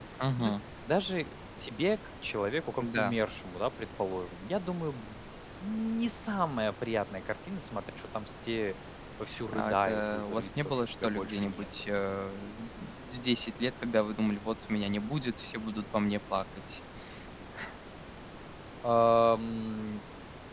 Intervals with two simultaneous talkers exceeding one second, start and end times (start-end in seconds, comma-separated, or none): 9.5-11.7